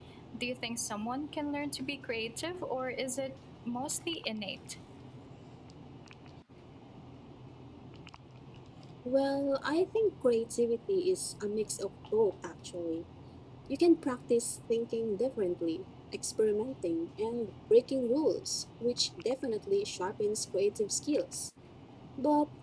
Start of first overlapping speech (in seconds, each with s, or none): none